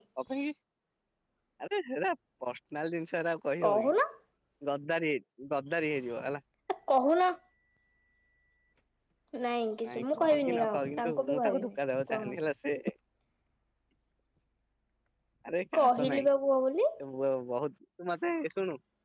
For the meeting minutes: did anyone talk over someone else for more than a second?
Yes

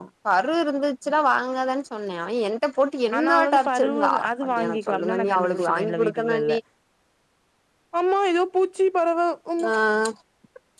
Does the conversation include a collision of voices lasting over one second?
Yes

